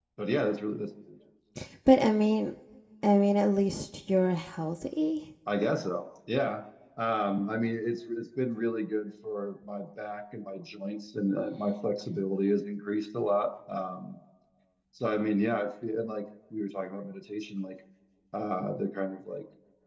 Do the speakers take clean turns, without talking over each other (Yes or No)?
Yes